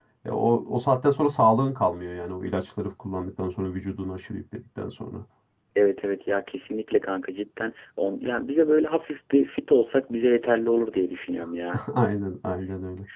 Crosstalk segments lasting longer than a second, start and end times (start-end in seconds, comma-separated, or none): none